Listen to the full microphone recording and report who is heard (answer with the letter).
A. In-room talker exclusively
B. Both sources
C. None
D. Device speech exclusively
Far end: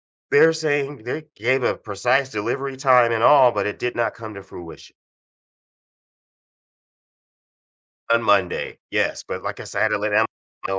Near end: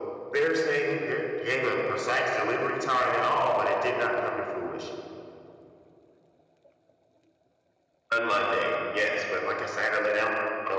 D